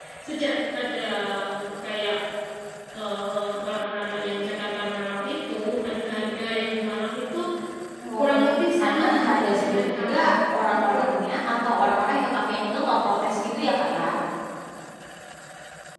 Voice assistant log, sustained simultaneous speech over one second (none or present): present